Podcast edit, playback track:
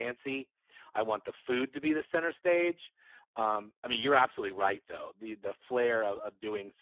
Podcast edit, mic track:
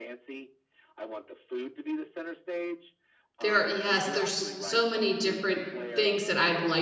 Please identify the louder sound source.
user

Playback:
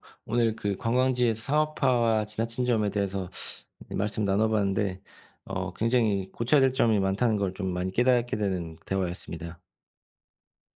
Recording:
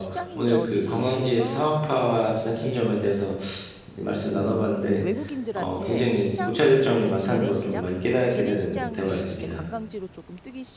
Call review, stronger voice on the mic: echo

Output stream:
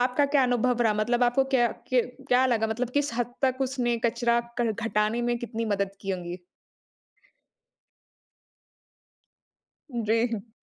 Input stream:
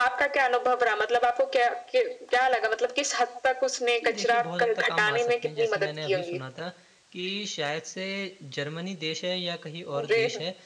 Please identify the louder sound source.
echo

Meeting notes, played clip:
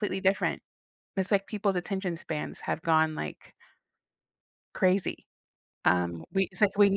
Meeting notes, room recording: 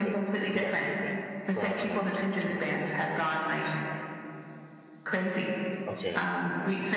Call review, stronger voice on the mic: echo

